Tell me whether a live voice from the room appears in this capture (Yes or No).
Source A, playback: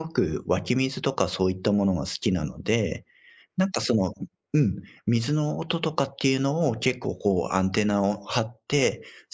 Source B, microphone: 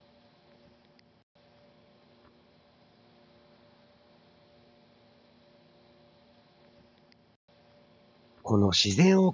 Yes